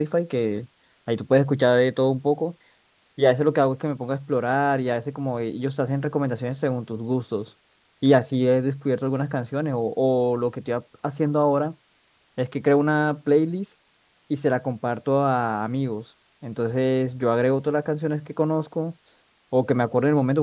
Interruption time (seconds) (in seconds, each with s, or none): none